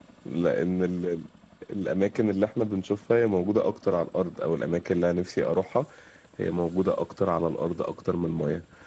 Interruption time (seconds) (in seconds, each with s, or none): none